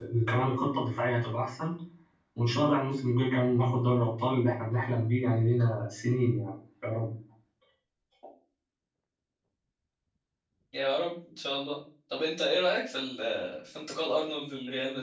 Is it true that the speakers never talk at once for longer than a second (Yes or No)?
Yes